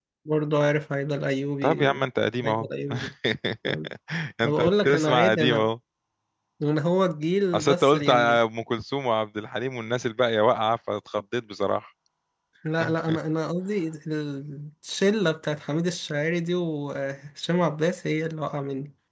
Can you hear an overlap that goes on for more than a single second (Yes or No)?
Yes